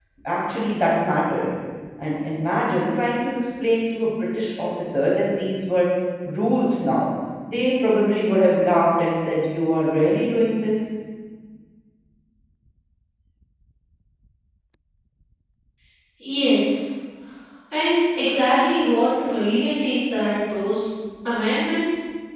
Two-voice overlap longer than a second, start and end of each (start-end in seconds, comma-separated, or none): none